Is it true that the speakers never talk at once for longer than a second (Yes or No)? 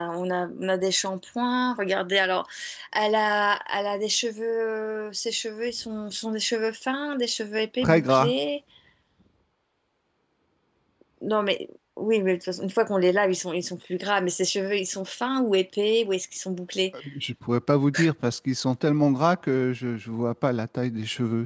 Yes